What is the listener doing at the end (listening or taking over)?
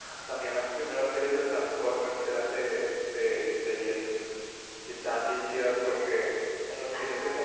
listening